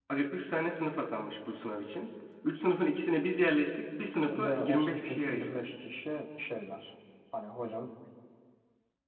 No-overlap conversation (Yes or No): No